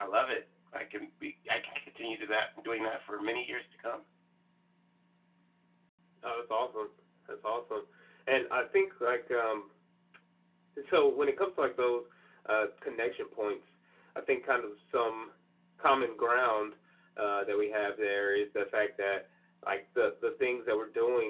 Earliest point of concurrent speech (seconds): none

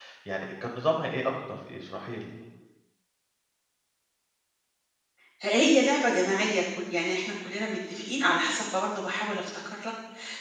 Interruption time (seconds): none

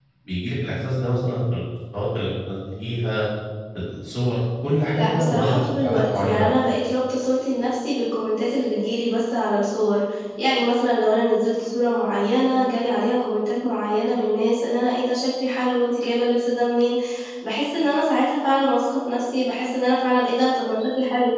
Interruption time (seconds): 4.9 s

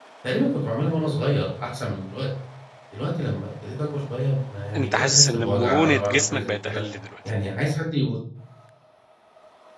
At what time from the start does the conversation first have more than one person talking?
4.7 s

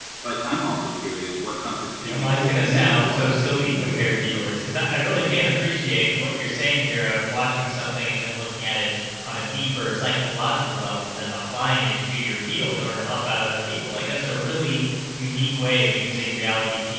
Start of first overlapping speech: 2.0 s

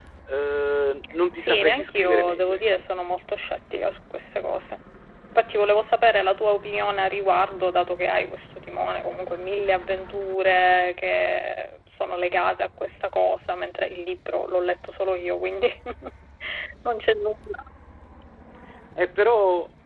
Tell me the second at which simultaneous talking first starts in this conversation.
1.4 s

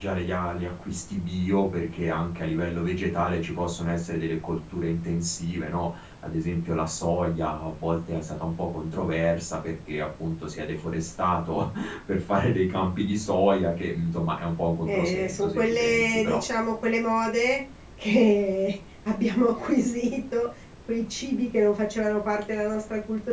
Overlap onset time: 14.8 s

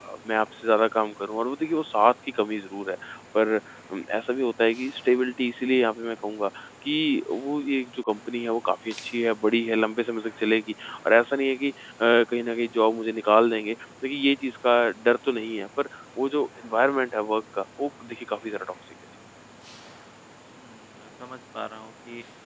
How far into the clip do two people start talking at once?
none

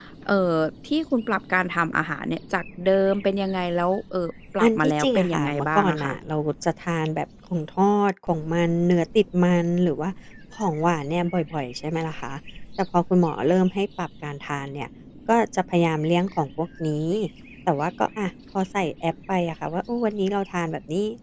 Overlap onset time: 4.6 s

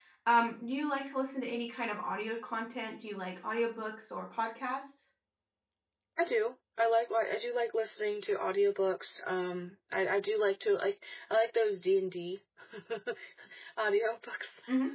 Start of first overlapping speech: none

